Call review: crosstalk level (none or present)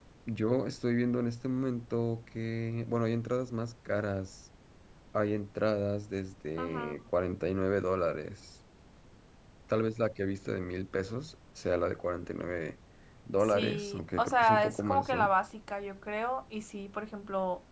present